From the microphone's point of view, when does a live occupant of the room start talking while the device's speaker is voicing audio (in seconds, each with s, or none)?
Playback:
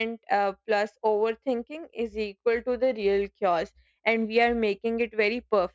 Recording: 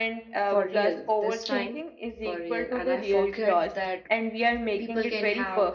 0.4 s